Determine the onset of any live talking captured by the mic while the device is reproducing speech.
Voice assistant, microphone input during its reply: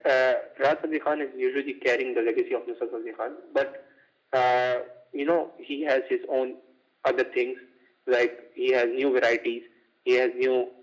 none

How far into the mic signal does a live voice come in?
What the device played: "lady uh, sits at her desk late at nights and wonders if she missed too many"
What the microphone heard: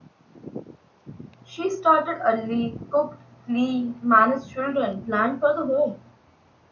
1.4 s

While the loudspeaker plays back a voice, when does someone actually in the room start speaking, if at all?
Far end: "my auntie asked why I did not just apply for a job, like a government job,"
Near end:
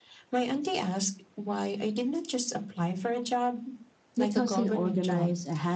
4.2 s

